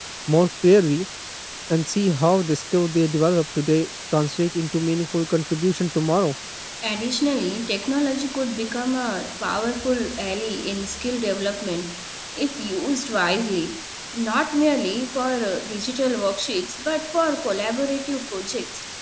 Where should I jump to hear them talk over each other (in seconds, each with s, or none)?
none